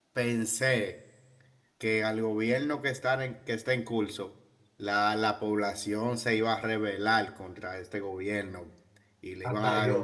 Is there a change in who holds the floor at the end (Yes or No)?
No